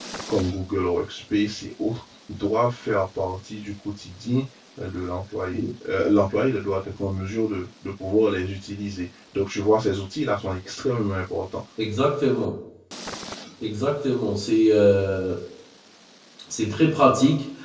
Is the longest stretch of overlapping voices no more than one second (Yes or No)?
Yes